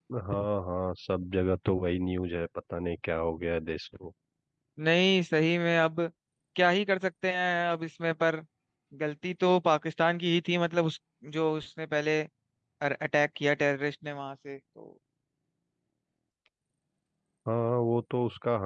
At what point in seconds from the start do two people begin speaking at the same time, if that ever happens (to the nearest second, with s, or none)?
none